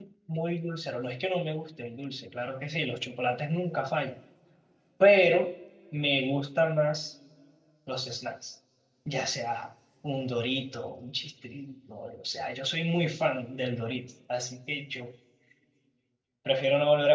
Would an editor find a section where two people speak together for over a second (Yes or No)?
No